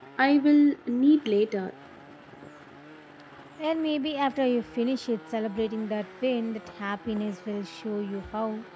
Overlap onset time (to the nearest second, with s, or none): none